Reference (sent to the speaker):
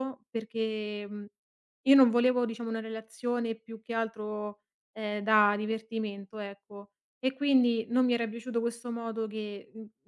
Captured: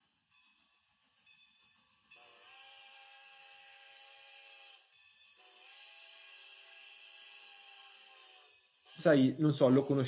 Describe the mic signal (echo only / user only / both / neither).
user only